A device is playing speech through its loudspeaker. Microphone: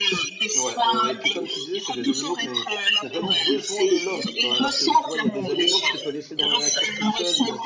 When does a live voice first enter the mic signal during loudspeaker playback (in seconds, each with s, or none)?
0.5 s